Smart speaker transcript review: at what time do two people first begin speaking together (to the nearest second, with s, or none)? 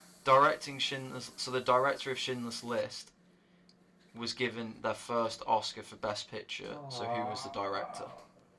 7 s